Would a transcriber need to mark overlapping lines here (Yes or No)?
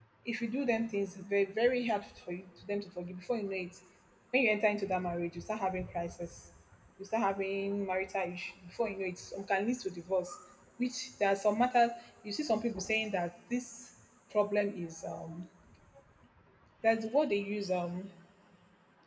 No